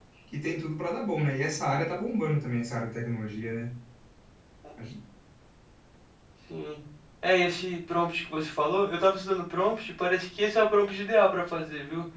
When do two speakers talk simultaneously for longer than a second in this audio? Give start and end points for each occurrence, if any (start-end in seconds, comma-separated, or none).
none